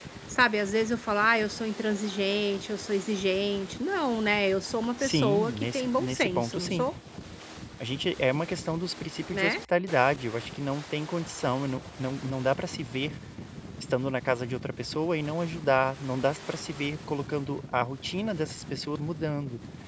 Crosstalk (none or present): present